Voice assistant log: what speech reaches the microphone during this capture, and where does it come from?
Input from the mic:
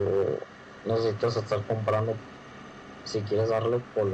echo only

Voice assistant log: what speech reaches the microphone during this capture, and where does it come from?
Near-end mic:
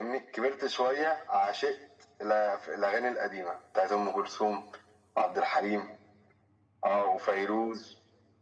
echo only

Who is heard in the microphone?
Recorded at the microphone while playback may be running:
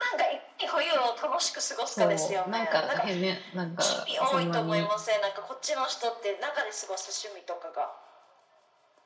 both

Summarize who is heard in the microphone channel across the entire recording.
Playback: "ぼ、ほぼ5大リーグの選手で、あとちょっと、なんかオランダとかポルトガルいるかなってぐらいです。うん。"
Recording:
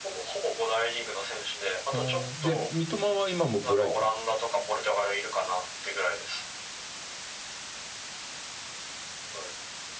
both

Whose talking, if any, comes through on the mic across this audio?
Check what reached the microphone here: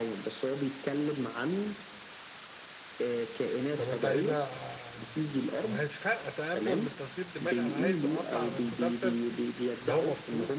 both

